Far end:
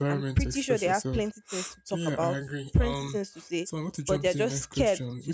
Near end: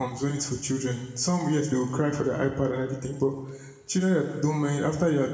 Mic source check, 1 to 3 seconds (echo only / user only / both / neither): user only